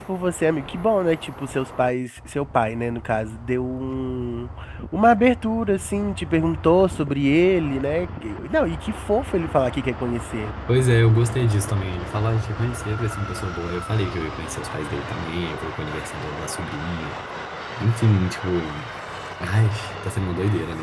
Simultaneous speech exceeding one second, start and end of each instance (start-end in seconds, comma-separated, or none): none